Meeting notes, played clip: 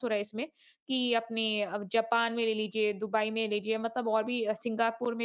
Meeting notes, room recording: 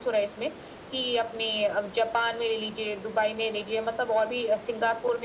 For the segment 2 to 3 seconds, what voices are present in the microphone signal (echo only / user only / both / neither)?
echo only